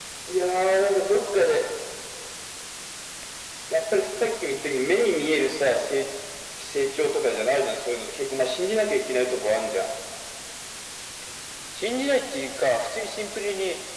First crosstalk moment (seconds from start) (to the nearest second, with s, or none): none